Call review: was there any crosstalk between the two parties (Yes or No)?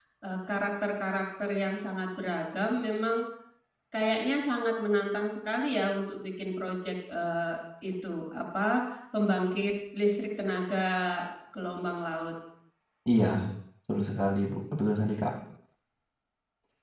No